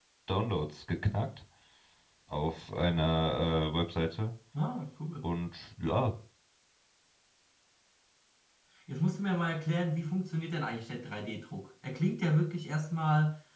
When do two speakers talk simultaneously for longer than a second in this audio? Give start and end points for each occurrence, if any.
none

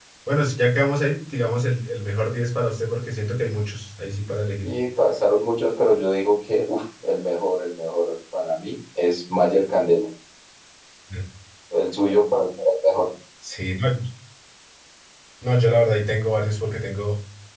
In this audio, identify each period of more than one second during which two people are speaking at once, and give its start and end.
none

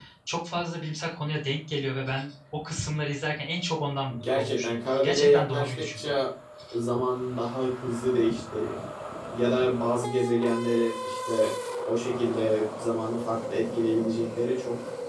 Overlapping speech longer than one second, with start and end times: 4.3-6.1

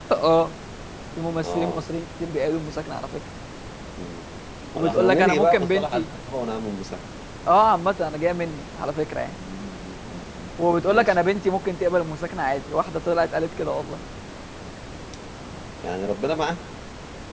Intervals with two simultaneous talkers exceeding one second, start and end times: 4.8-6.1

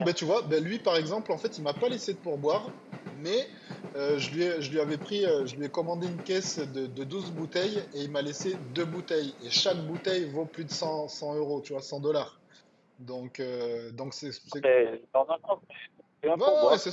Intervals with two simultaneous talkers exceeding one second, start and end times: none

